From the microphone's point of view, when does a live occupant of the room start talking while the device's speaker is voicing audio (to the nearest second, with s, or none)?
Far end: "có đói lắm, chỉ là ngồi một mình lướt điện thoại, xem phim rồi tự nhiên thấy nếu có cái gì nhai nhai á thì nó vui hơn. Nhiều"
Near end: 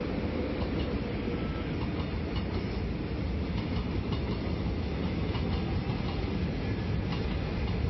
none